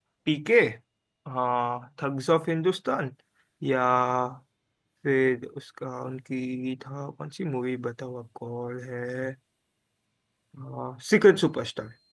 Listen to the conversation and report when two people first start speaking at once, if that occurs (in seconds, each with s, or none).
none